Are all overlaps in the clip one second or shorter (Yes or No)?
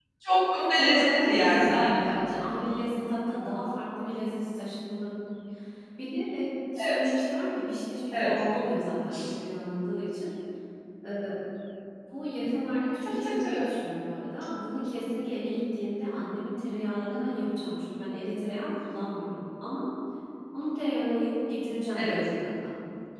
No